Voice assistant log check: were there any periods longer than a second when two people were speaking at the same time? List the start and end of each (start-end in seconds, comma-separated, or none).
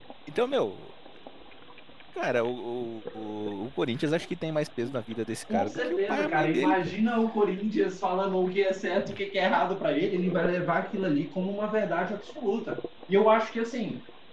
5.5-7.0